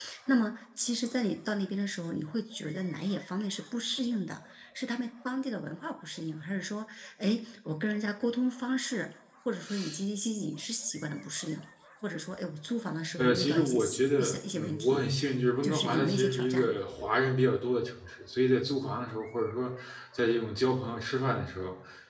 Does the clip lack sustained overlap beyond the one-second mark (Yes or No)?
No